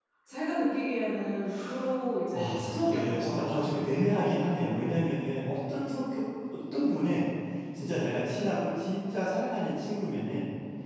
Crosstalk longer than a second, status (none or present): present